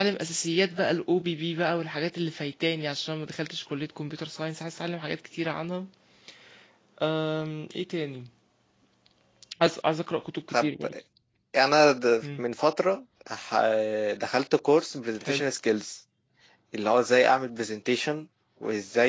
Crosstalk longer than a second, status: none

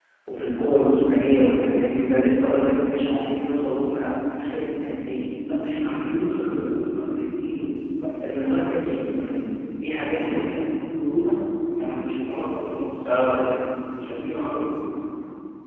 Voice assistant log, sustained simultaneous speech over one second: none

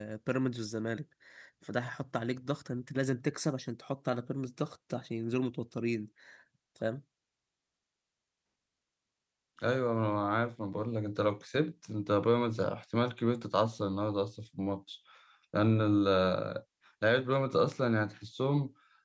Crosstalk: none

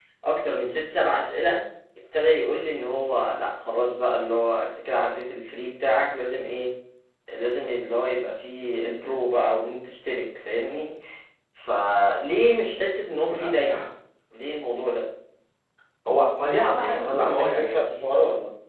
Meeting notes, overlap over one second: present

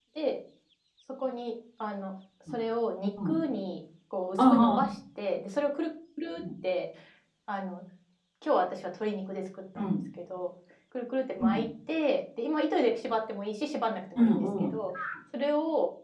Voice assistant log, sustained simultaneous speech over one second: none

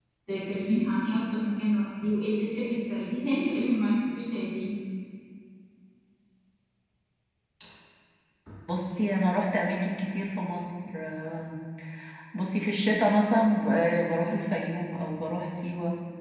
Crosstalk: none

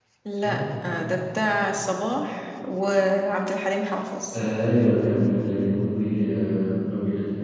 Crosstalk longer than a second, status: none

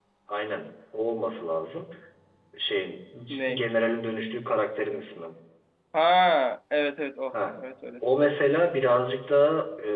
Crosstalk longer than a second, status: none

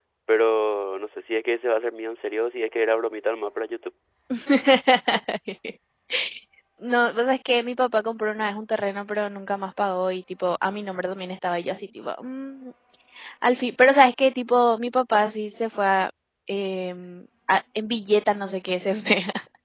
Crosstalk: none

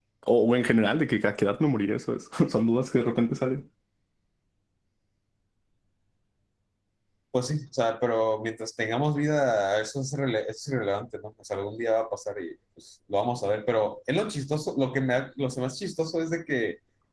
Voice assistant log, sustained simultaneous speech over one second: none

